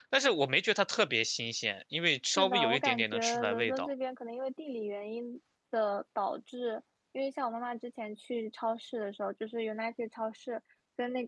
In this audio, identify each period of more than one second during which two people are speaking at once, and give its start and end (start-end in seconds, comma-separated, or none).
2.3-3.9